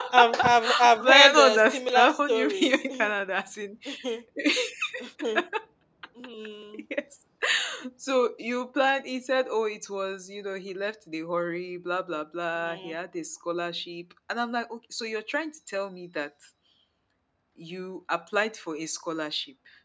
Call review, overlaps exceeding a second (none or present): present